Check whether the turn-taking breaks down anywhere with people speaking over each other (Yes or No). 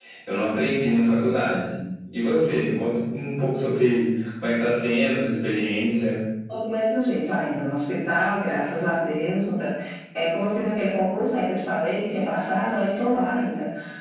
No